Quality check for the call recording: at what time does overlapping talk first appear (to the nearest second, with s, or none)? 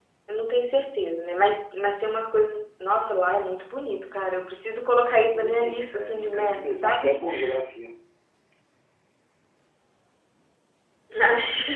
5 s